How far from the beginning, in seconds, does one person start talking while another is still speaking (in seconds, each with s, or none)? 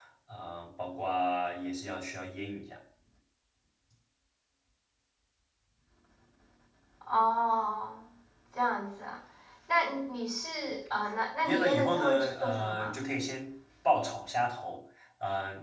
11.4 s